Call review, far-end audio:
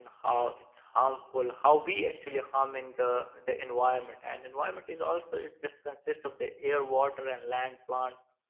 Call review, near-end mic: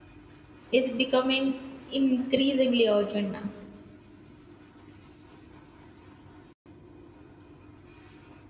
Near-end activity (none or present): present